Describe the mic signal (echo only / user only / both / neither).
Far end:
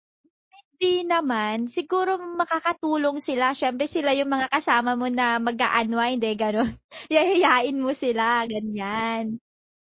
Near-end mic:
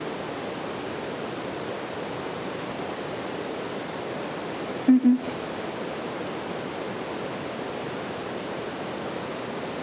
user only